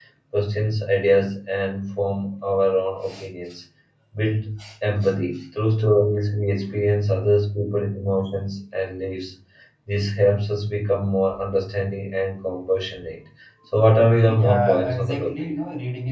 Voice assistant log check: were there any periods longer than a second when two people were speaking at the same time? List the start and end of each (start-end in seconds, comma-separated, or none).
14.3-15.5